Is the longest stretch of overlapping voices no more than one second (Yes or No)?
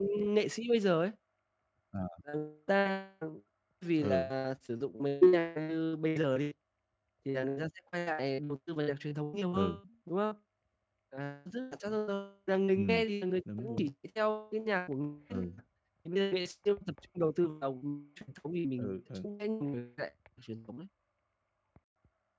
Yes